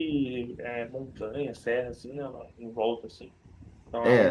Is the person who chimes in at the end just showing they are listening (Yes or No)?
No